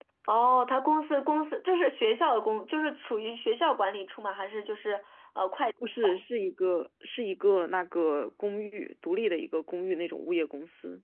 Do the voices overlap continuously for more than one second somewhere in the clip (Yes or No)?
No